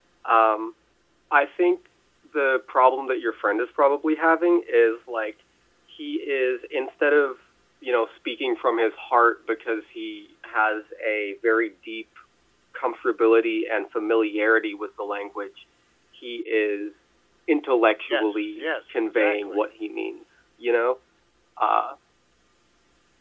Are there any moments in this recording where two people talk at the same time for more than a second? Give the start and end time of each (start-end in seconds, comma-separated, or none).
18.1-19.6